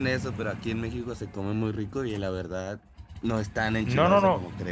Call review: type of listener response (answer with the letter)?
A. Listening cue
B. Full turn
B